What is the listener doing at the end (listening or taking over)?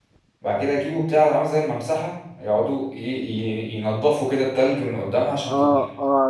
taking over